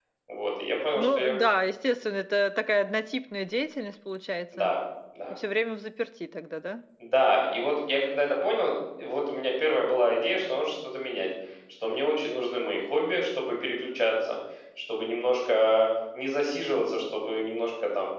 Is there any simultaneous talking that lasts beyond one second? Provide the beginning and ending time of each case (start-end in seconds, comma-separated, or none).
none